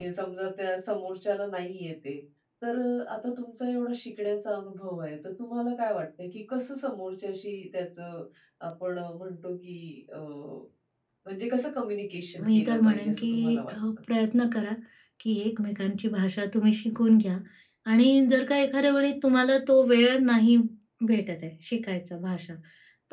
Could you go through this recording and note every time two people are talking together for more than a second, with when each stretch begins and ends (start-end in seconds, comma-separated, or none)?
12.4-13.7